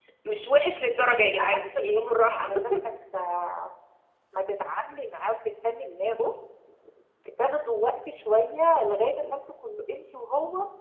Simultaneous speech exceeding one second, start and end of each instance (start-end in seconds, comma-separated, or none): 1.0-2.5